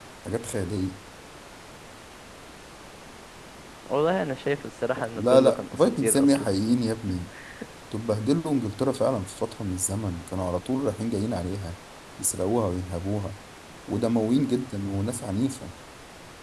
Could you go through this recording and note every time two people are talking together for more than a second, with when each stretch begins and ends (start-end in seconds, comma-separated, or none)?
5.2-6.5